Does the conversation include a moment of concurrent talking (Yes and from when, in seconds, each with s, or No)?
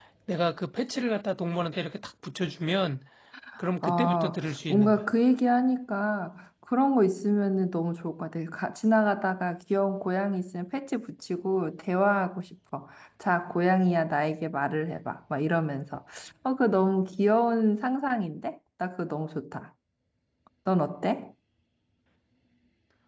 Yes, from 3.8 s